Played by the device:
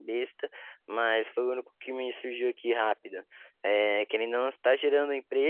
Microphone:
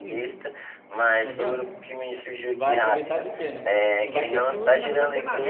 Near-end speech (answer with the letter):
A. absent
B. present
B